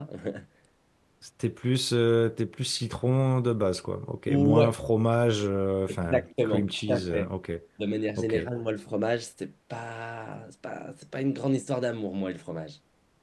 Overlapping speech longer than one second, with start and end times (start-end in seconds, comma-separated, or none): 6.0-7.3